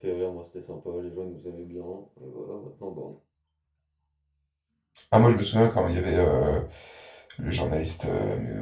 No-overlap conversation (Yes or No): Yes